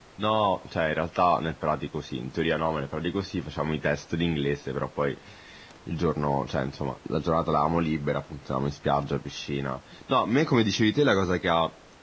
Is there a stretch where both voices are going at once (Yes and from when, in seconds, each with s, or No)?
No